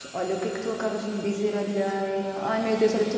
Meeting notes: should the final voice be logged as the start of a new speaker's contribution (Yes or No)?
No